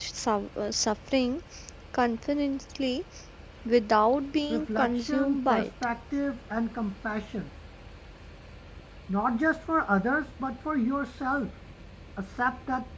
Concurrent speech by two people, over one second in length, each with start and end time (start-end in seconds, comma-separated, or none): 4.5-5.7